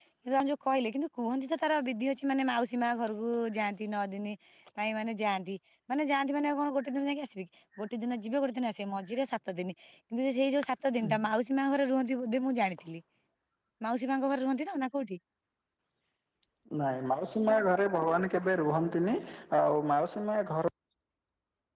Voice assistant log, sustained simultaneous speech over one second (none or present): none